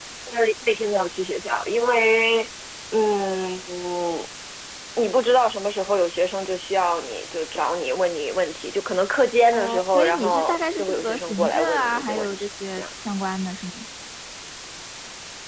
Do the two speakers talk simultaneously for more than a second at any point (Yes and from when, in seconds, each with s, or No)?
Yes, from 9.5 s